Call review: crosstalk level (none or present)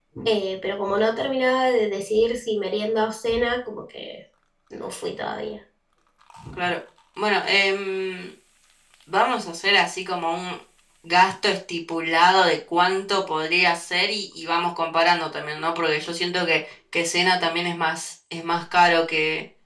none